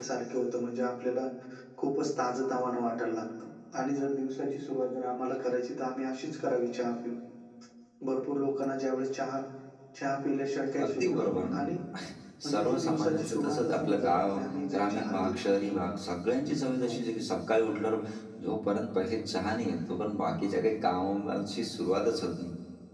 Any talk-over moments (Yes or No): Yes